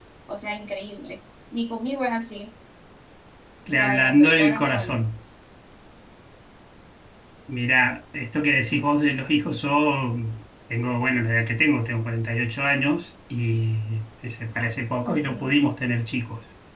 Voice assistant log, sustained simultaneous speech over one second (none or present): present